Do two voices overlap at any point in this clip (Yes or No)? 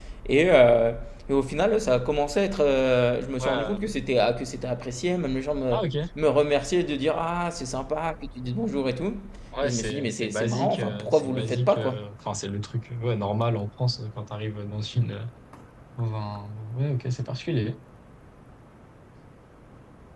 Yes